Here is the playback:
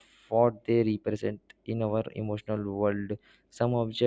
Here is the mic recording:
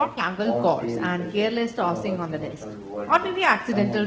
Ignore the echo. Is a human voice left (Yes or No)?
Yes